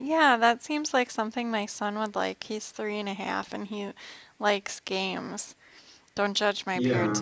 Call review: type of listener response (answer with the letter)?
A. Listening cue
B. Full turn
A